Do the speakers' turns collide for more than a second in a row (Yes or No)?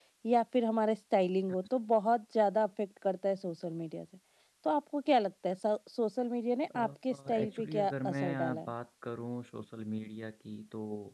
Yes